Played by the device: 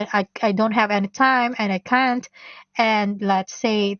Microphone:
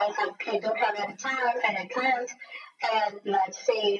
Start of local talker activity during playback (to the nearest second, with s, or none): none